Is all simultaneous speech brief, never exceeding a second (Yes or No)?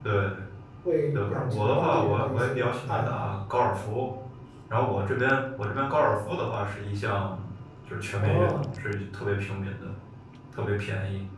No